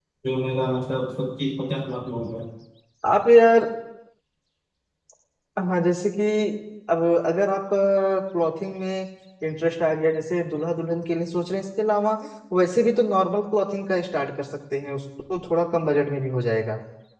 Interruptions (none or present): none